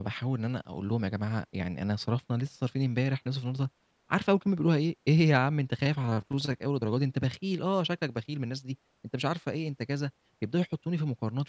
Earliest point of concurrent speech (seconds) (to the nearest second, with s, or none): none